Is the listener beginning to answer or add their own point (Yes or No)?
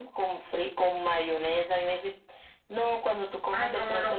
Yes